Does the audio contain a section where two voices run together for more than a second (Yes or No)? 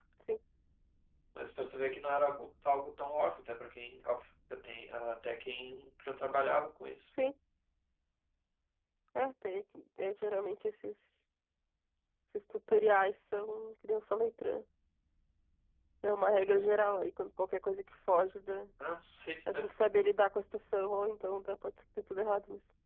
No